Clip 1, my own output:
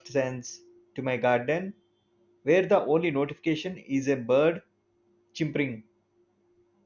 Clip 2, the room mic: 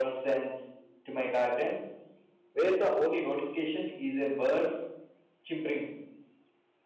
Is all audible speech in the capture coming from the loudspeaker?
Yes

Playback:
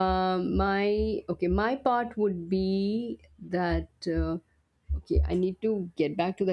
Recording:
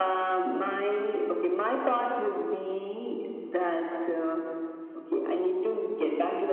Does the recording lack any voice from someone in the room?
Yes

